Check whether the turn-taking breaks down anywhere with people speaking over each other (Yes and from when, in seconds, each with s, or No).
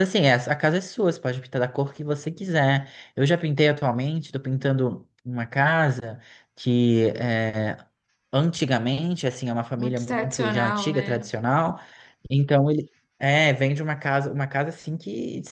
Yes, from 9.8 s